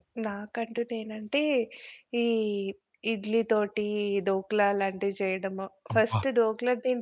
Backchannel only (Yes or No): Yes